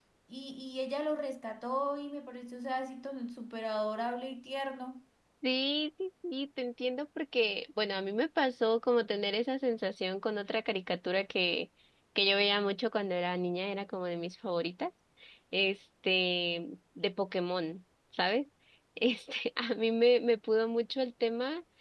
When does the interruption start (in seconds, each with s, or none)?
none